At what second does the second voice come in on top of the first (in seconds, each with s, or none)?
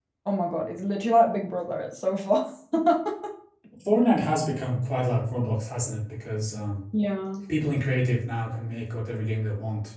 none